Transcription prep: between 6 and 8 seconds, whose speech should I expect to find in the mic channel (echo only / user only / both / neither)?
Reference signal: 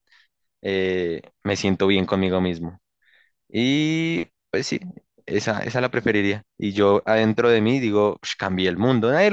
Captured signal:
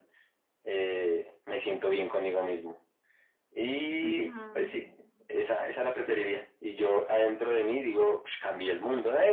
echo only